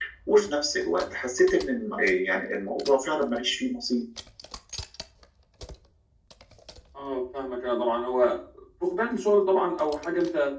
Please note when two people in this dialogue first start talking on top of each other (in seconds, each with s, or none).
none